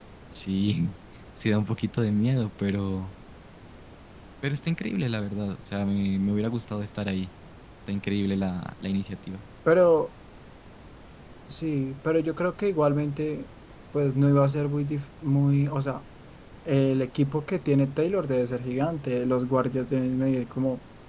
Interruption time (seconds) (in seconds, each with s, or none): none